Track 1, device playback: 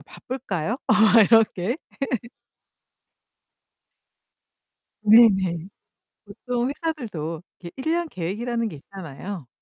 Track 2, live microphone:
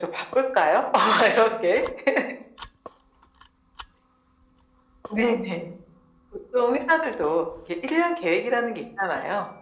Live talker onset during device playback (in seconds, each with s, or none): none